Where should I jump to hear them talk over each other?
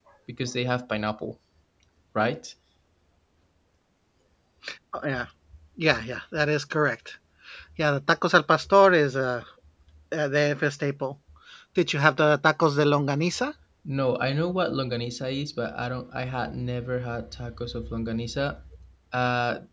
none

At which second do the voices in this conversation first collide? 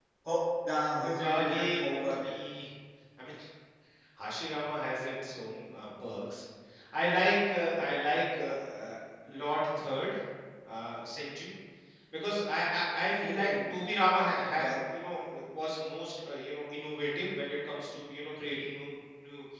1.0 s

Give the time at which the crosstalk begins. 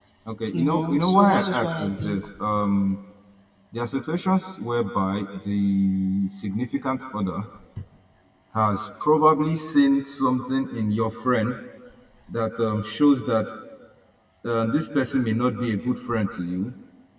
0.5 s

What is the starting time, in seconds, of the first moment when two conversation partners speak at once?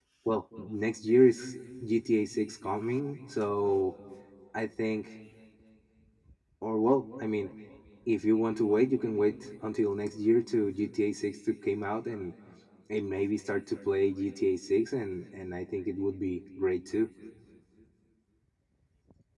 none

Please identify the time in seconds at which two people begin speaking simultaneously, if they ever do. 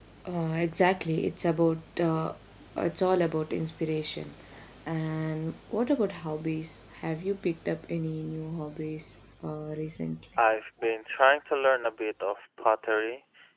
none

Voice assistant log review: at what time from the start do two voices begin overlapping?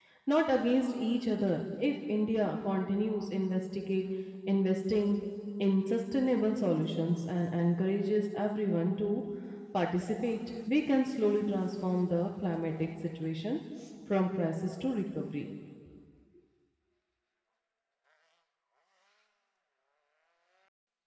none

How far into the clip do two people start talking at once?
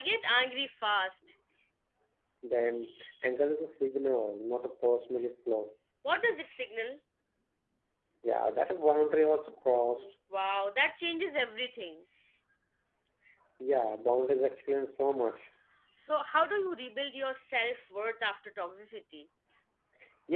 none

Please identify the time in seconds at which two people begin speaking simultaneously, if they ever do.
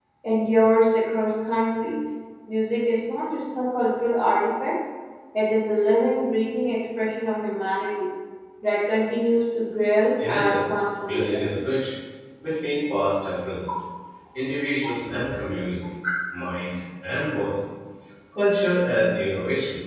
10.2 s

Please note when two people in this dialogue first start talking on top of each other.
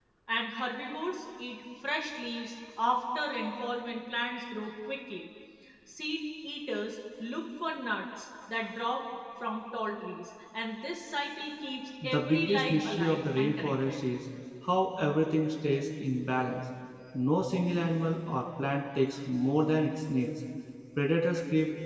12.0 s

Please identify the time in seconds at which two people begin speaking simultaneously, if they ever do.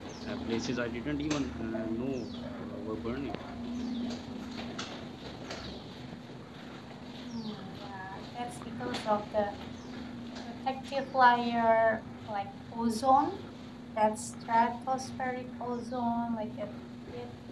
none

